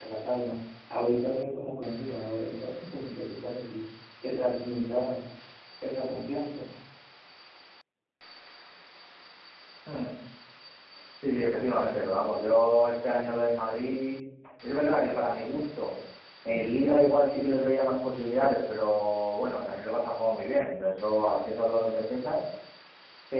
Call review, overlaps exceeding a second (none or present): none